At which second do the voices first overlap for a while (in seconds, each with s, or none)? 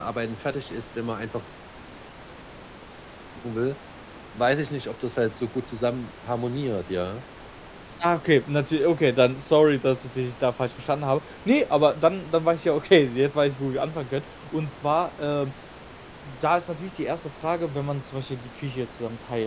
none